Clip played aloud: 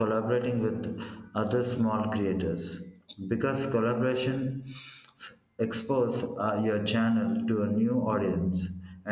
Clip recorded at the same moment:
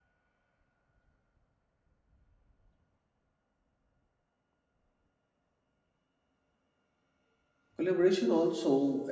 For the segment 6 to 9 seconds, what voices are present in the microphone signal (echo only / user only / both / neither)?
user only